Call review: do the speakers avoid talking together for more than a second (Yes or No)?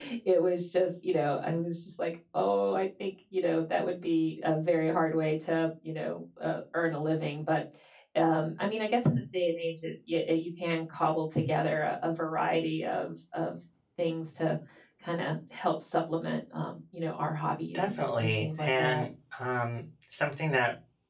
No